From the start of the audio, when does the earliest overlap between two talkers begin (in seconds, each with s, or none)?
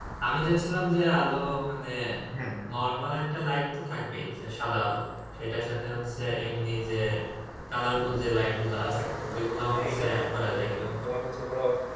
8.8 s